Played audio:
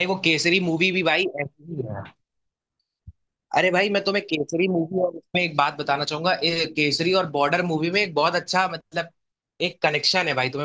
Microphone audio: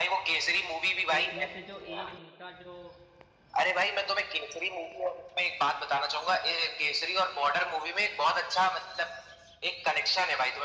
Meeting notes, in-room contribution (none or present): present